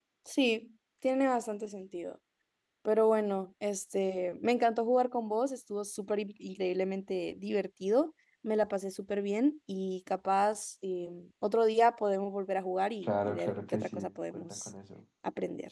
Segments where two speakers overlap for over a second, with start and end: 13.0-14.7

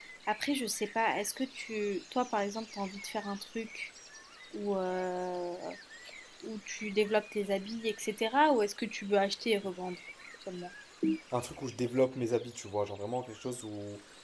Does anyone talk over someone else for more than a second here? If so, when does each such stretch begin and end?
none

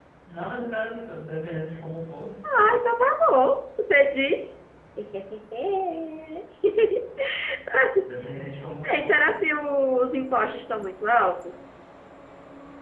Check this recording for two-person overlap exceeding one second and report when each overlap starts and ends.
none

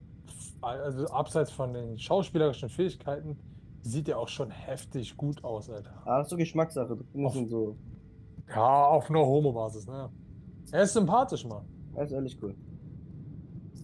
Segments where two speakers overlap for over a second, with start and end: none

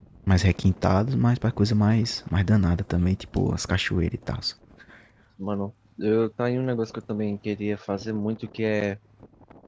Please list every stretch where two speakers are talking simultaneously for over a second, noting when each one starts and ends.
none

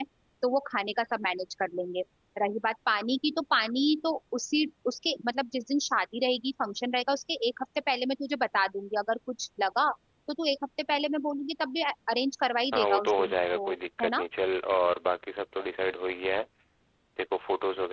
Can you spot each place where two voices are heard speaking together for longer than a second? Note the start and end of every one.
12.7-14.2

